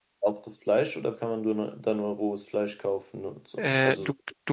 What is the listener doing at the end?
taking over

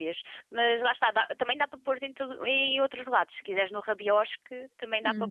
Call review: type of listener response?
taking over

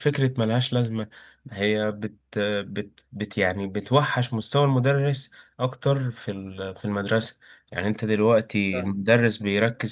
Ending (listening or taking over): listening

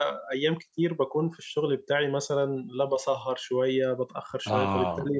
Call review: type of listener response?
listening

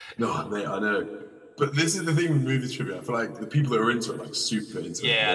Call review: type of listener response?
taking over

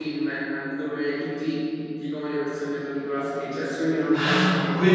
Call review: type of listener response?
taking over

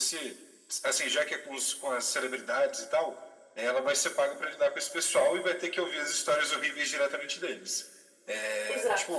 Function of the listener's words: listening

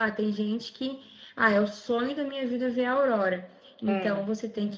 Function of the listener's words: listening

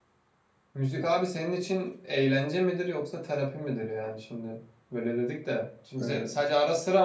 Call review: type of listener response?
listening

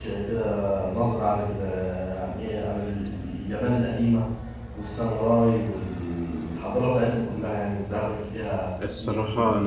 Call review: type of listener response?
taking over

